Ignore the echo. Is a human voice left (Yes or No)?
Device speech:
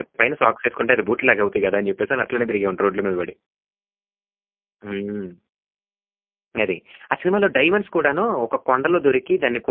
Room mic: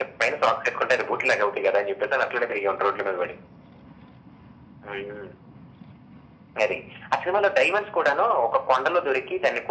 No